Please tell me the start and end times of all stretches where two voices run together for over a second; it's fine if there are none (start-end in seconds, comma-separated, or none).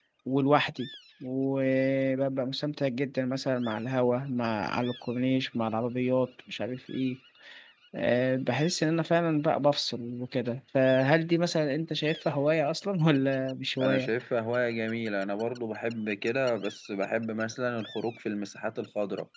none